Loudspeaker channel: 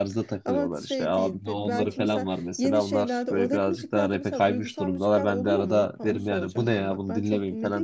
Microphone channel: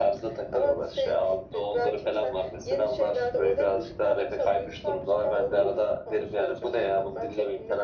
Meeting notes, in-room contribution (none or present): none